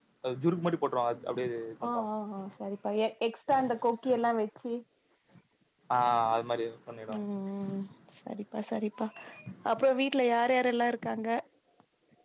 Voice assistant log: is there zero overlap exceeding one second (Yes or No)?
Yes